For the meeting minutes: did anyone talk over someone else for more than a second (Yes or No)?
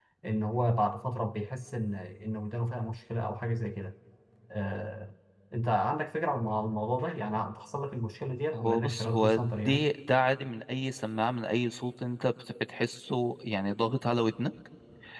Yes